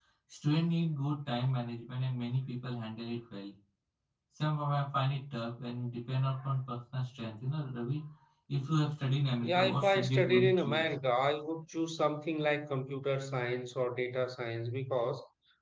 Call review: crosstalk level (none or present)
present